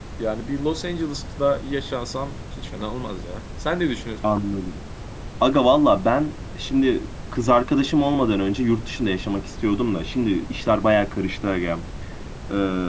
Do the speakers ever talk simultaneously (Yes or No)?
No